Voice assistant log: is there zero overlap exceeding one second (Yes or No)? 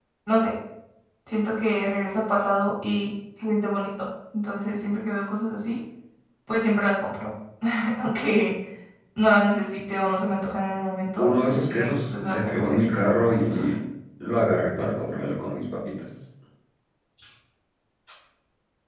No